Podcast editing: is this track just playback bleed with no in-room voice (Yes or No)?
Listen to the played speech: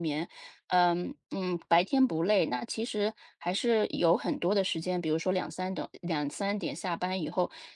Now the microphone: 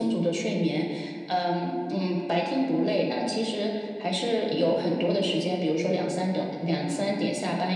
Yes